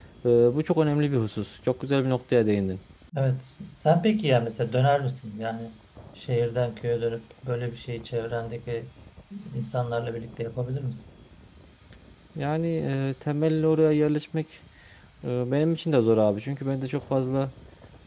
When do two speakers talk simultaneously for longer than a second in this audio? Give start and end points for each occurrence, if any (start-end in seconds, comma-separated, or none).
none